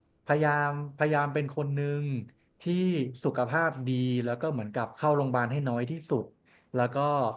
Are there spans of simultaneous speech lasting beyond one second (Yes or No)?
No